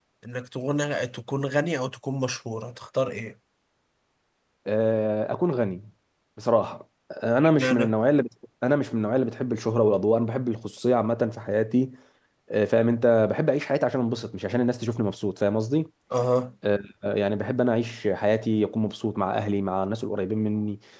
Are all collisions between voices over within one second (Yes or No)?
Yes